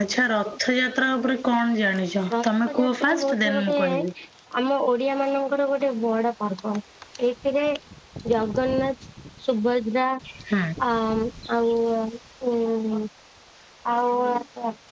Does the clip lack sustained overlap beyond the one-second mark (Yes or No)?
No